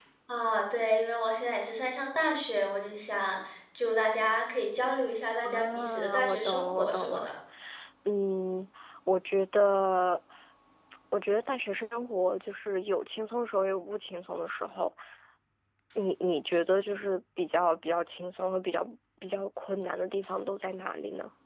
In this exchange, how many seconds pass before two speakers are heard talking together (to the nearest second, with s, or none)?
5 s